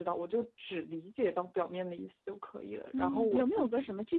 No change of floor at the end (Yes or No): No